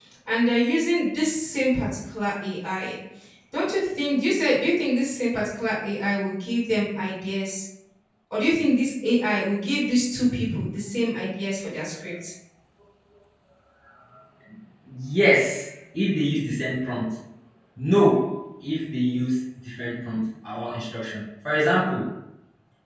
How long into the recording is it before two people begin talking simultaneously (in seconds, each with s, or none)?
none